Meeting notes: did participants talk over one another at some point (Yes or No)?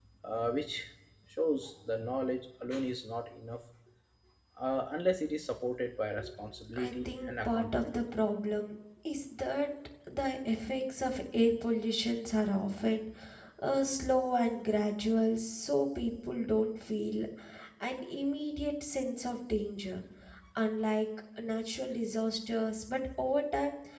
Yes